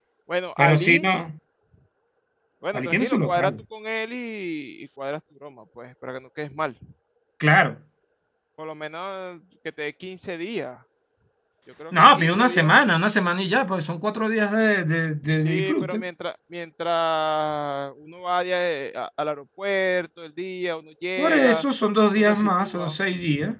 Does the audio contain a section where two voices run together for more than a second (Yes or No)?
Yes